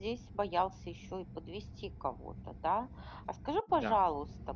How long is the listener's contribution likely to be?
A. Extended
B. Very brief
B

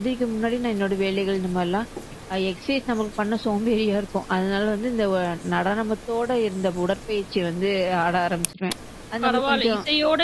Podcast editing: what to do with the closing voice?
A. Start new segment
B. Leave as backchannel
A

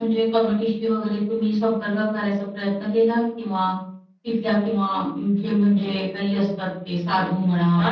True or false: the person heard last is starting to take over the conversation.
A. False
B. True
B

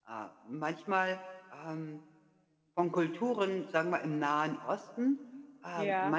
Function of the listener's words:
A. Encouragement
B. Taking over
A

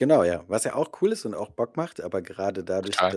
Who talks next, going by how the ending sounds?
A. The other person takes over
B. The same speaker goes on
B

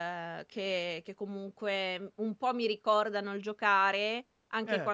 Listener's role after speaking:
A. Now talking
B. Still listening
B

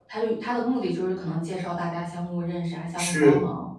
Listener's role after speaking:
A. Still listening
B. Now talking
B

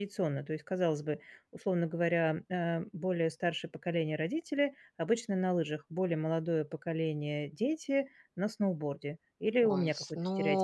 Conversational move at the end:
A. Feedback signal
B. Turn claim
B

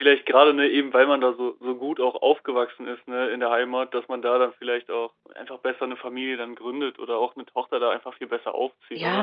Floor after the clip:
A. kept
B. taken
B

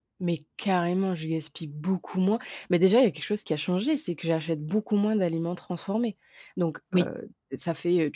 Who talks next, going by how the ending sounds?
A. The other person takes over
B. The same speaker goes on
B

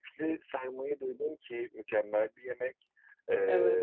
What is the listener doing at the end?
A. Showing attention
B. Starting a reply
A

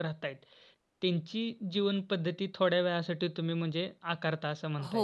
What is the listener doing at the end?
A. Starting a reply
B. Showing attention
A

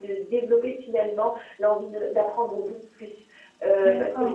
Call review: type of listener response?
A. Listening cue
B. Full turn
B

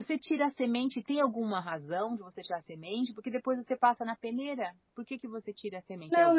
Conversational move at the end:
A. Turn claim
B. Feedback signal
A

